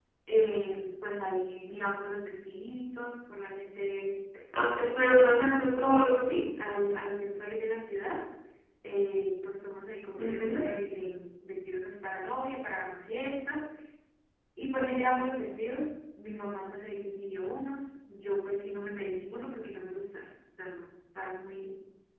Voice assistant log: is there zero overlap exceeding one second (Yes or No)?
Yes